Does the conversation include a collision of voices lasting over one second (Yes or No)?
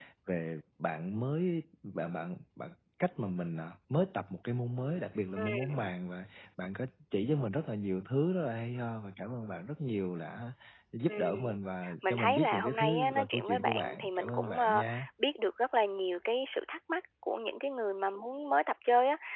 Yes